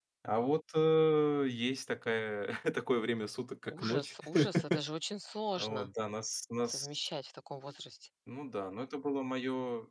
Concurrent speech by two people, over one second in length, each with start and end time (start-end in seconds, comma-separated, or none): none